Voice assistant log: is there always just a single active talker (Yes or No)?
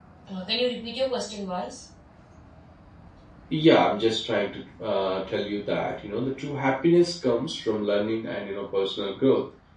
Yes